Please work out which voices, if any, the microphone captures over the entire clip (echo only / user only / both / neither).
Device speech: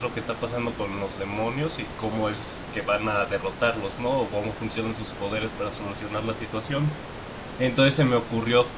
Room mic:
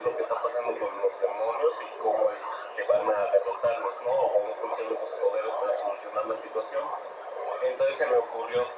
echo only